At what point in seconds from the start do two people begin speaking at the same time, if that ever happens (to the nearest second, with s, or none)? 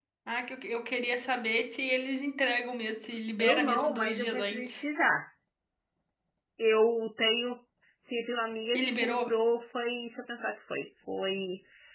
3 s